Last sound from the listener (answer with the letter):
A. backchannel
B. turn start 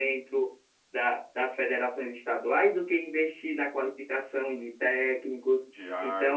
A